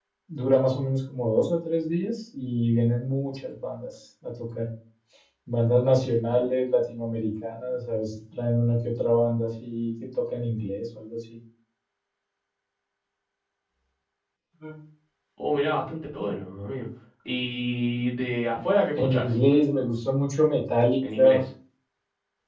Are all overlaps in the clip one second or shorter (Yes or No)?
Yes